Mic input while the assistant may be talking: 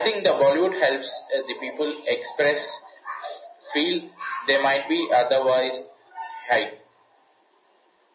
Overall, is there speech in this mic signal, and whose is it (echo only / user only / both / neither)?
echo only